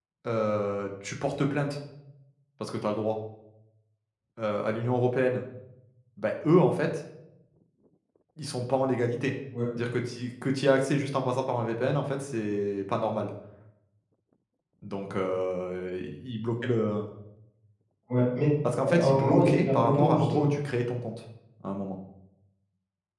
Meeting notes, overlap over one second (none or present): present